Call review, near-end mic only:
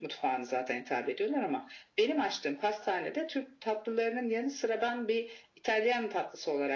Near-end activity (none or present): none